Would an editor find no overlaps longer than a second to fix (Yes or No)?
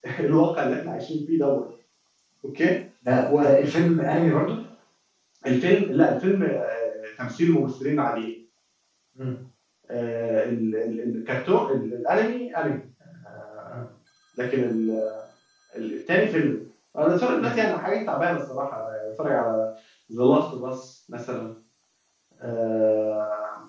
Yes